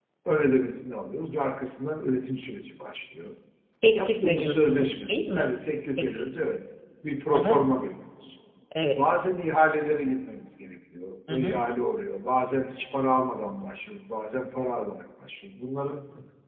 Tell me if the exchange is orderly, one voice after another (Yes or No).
No